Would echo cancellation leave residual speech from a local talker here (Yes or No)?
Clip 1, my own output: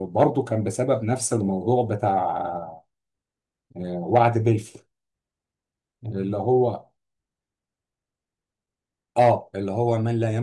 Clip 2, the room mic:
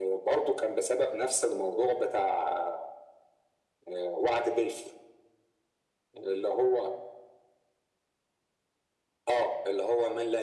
No